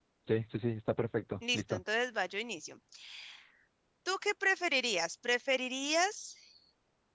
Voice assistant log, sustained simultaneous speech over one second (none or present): none